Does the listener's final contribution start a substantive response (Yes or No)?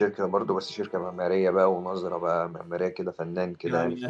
Yes